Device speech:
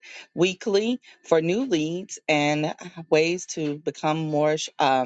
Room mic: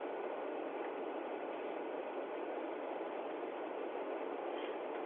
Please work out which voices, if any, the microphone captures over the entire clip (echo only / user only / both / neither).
neither